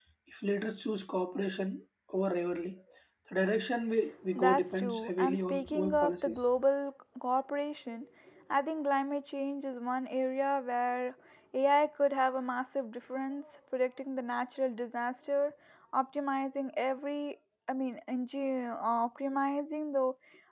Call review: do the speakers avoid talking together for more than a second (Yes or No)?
No